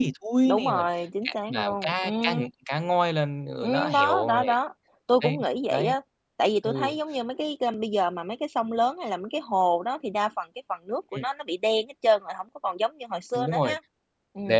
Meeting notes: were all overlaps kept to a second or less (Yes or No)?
No